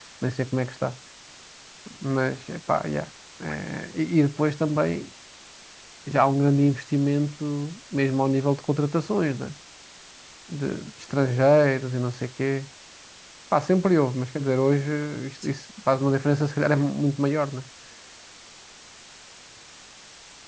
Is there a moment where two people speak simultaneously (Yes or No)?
No